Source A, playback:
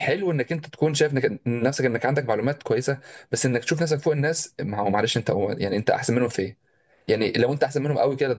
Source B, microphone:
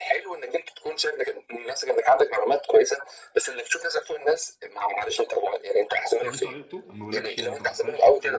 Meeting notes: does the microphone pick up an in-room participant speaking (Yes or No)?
Yes